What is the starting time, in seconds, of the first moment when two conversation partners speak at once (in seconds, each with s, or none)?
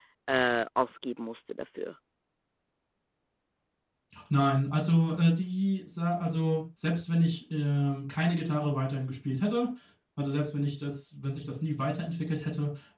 none